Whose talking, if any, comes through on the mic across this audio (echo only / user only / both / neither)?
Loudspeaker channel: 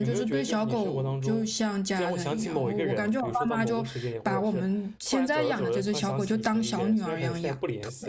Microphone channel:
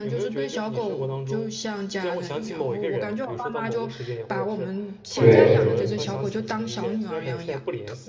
both